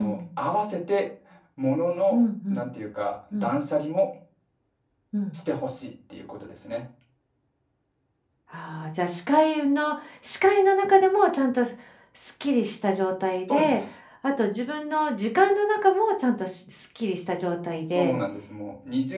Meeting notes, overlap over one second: none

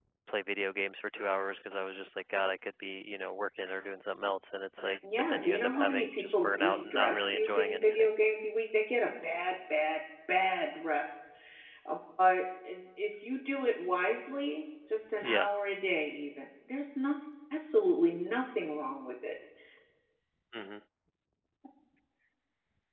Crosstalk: present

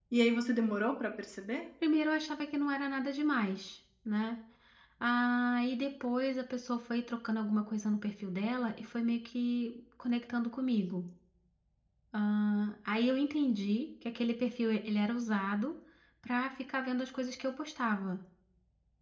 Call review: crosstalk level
none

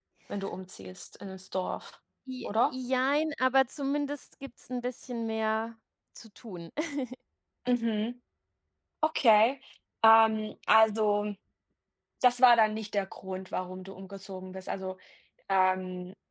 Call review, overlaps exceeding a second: none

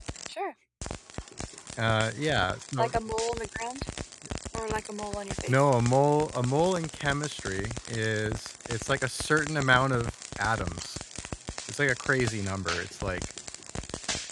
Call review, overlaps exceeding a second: none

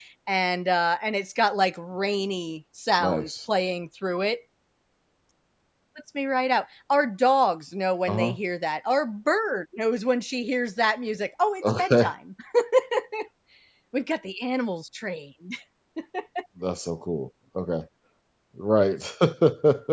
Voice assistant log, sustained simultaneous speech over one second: none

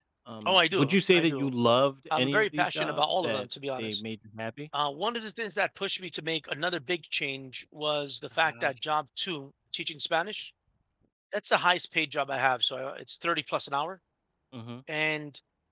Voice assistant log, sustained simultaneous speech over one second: present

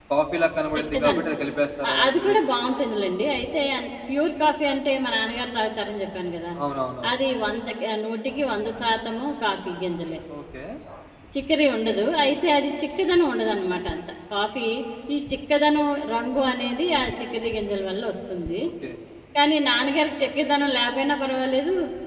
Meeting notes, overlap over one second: none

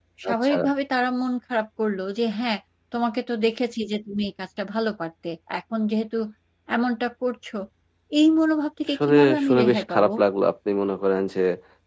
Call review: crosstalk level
present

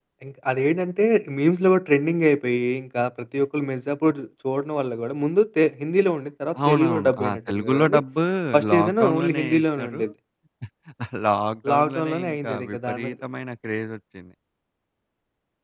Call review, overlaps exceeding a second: present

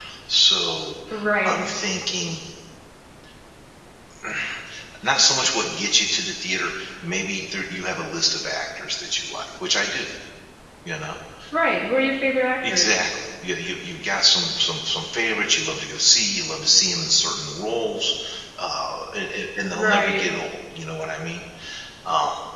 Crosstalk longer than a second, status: none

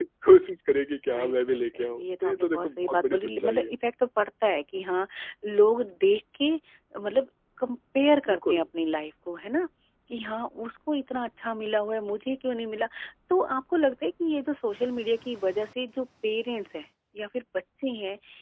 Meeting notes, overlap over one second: present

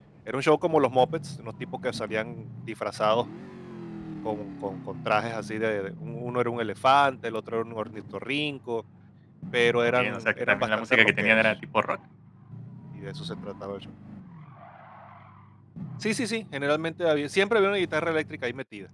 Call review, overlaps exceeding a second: present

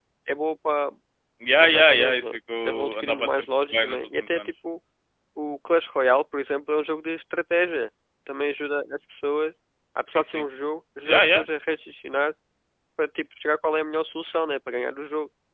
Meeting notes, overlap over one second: present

